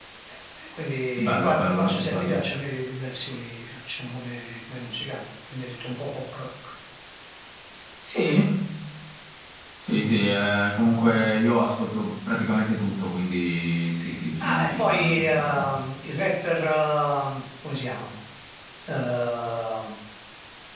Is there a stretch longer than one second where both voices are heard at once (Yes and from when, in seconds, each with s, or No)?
Yes, from 1.2 s